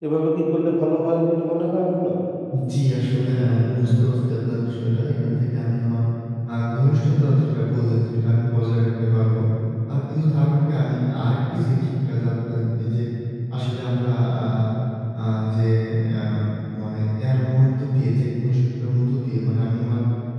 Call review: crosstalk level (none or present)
none